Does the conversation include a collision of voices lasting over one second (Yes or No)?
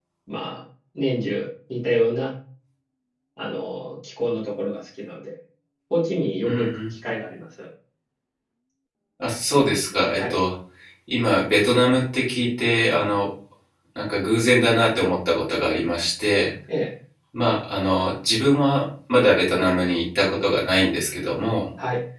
No